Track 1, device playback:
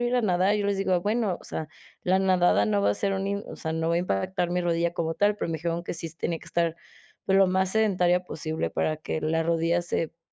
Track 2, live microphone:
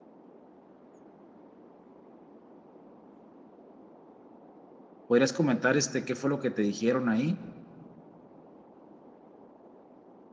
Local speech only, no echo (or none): ¿Podrías comentar, este, qué fue lo que te dijeron ahí?